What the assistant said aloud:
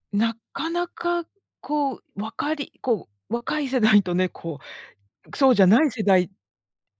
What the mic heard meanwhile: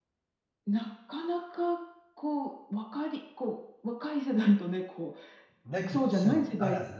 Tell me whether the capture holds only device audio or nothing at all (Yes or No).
No